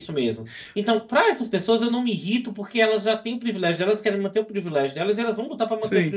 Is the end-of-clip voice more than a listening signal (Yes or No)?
Yes